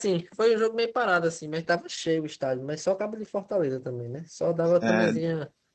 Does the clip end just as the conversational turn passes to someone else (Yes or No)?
No